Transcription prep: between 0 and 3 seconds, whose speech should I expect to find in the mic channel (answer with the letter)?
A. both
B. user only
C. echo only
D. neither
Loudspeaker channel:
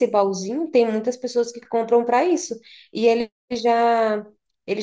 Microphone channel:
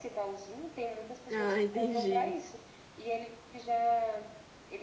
A